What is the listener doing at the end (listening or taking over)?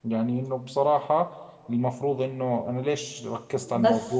listening